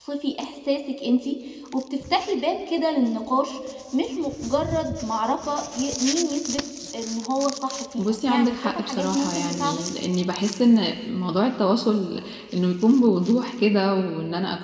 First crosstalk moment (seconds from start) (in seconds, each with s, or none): 8.0 s